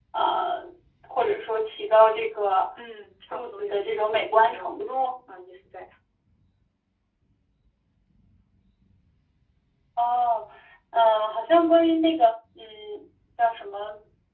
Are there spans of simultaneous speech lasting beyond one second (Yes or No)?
Yes